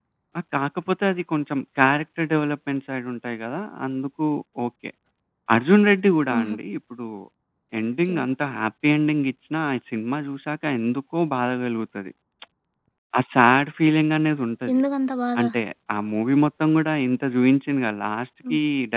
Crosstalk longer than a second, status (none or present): none